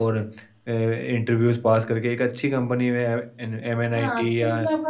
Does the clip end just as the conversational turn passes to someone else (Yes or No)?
Yes